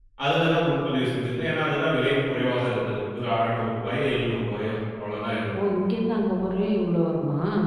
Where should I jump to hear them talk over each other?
none

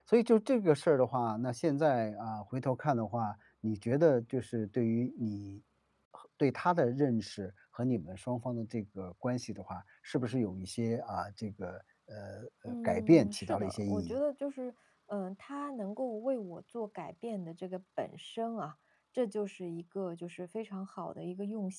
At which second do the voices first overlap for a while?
12.7 s

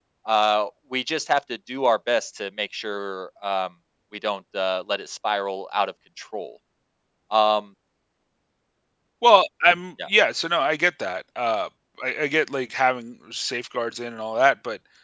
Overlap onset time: none

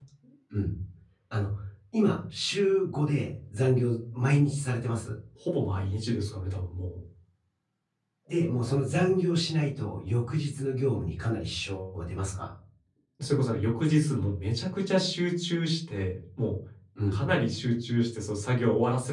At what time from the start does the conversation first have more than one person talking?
none

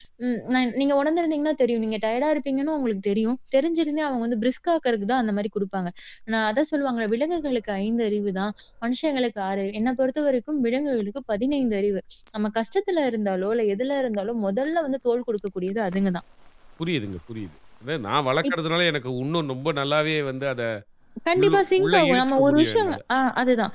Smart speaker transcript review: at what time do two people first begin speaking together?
21.4 s

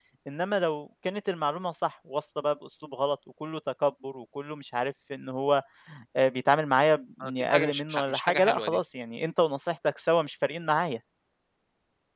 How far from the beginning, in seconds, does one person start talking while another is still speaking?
7.2 s

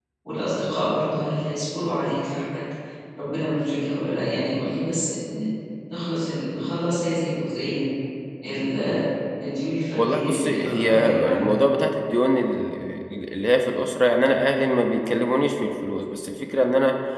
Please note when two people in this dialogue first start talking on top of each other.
10.0 s

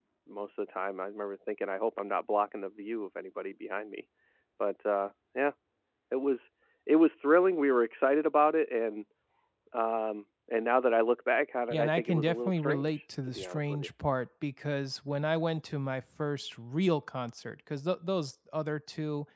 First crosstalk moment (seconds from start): 11.7 s

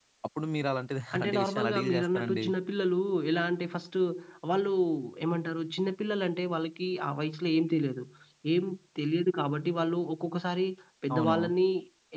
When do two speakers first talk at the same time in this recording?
1.1 s

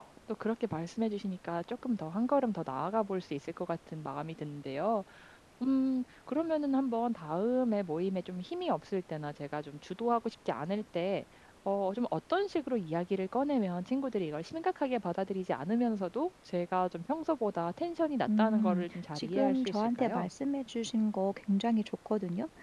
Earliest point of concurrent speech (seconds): 18.3 s

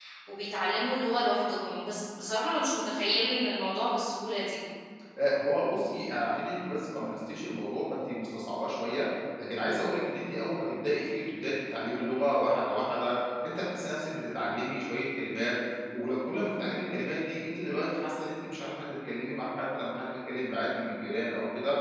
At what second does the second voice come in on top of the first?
none

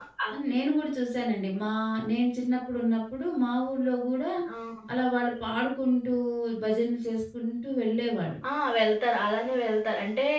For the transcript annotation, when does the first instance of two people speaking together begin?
none

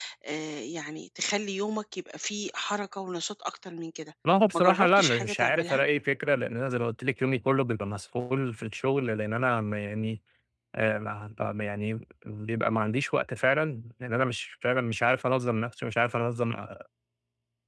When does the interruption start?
4.5 s

